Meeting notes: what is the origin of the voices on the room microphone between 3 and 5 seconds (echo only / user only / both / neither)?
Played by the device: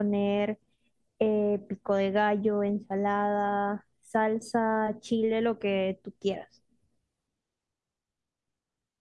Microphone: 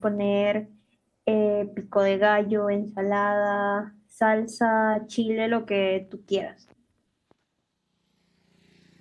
echo only